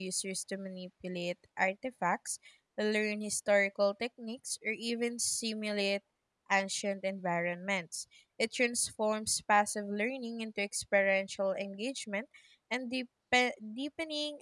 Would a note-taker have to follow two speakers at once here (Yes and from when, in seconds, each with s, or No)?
No